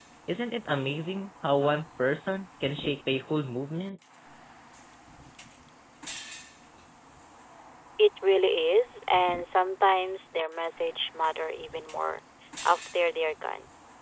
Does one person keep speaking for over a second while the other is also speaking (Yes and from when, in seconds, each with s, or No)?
No